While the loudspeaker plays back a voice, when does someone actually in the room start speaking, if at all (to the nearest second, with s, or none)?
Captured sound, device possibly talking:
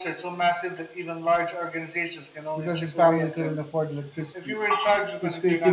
3 s